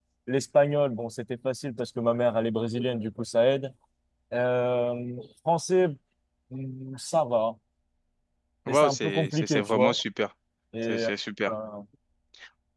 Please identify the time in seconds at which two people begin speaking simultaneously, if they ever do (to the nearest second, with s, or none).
9 s